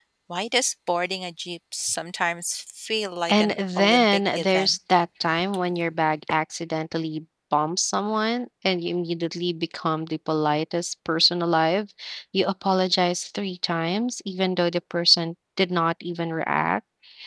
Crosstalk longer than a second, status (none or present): present